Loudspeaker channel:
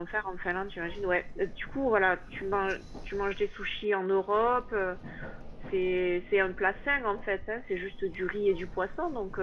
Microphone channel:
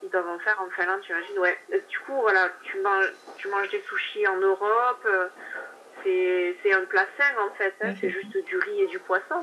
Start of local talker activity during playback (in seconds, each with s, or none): 7.8 s